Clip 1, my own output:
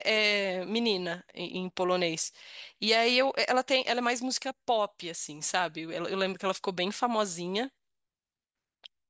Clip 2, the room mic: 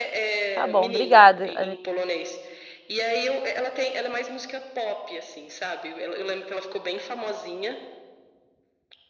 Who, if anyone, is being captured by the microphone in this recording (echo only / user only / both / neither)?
both